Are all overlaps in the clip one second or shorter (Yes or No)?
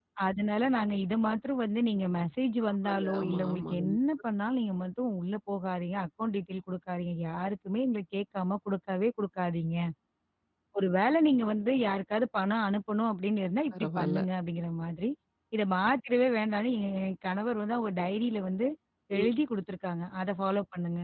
No